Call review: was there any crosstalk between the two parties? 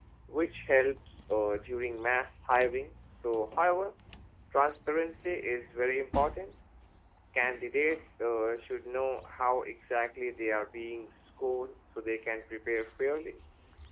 No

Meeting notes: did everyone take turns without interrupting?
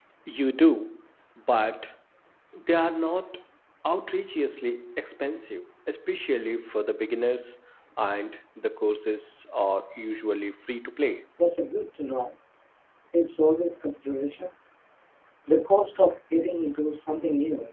Yes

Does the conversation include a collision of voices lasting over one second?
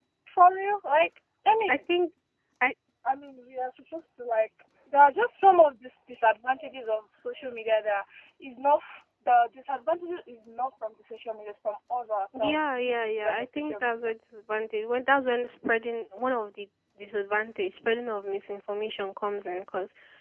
Yes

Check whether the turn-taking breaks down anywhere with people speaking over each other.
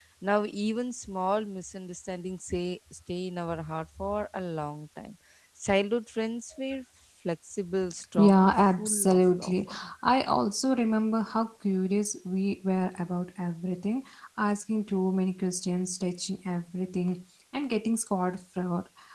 Yes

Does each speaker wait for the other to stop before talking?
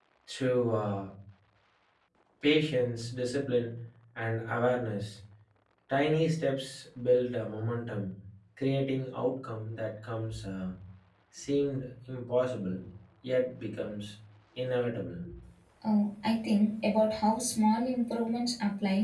Yes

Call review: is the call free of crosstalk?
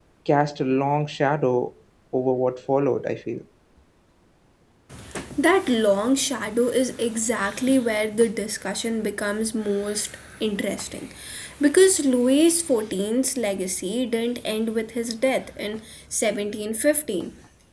Yes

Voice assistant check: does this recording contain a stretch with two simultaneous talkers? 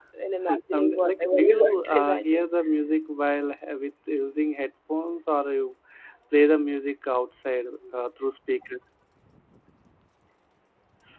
Yes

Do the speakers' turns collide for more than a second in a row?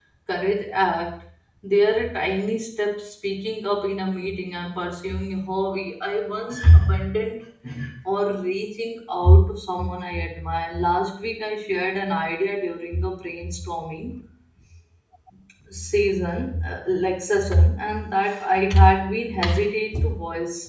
No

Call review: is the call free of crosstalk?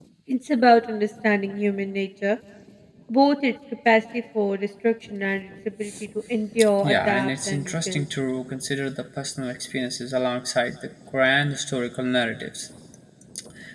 No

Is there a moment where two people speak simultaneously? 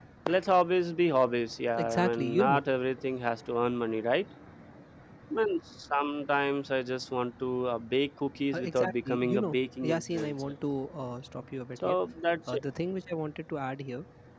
Yes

